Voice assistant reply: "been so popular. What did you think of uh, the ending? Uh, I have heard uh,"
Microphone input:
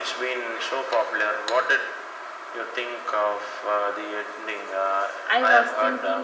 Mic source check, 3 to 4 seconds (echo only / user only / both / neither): echo only